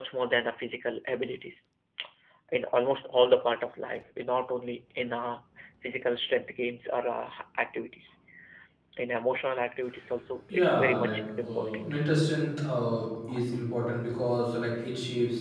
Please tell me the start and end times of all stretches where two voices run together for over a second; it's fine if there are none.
10.5-11.8

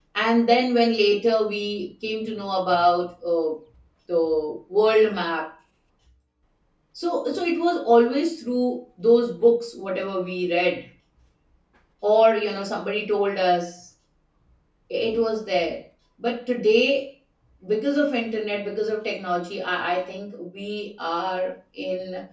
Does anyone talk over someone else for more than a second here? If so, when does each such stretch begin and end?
none

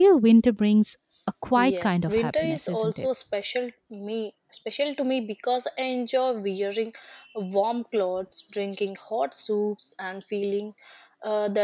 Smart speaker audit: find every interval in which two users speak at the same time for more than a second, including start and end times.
1.6-3.1

